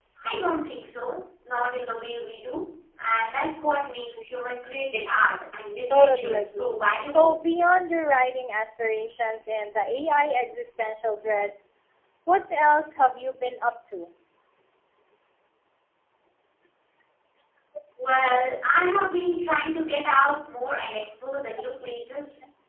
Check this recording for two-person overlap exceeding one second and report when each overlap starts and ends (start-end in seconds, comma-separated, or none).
5.9-7.3